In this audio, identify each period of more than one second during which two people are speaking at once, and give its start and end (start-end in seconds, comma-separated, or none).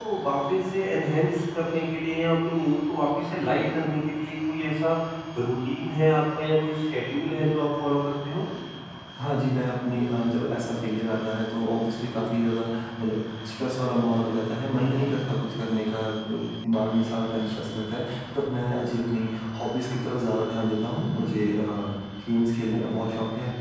none